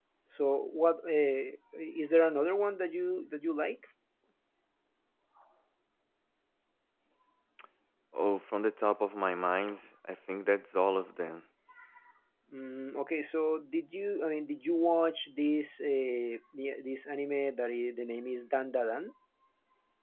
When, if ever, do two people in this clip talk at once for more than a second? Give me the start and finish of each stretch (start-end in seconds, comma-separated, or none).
none